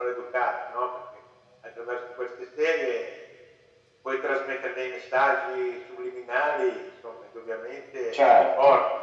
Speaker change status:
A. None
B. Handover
B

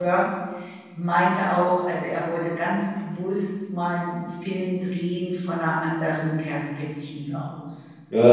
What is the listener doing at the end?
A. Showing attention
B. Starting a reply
B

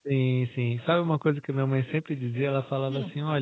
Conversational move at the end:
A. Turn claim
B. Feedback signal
B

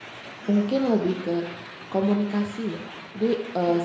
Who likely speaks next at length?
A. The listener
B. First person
B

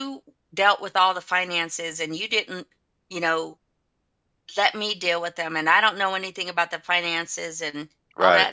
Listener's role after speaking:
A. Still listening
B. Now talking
A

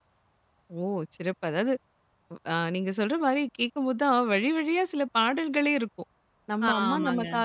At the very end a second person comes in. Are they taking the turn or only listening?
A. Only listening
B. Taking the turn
A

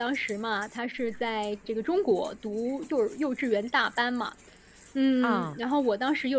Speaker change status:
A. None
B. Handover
A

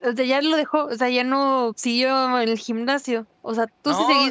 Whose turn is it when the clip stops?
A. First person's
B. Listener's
B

